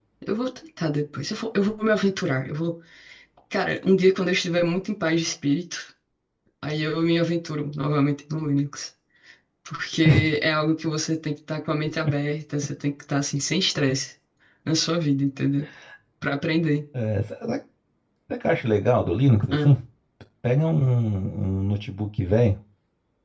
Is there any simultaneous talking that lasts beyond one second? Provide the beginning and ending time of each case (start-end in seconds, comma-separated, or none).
none